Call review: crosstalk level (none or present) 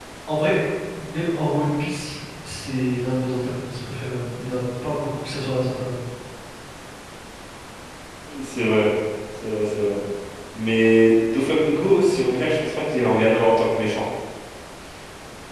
none